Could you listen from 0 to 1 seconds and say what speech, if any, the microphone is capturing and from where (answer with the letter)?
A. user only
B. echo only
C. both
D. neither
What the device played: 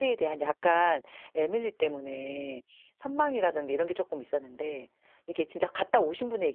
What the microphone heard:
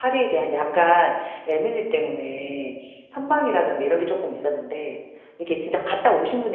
B